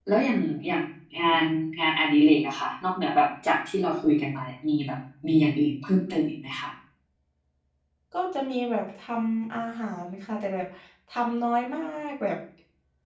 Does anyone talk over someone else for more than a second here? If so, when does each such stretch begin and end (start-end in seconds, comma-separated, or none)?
none